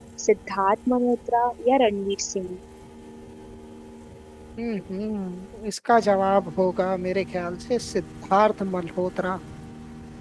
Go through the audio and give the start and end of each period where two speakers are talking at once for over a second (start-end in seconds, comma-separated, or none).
none